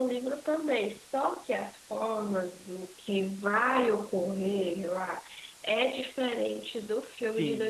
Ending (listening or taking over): taking over